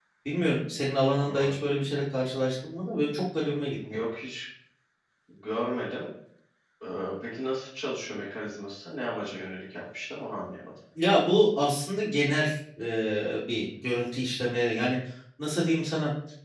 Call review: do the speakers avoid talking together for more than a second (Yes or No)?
Yes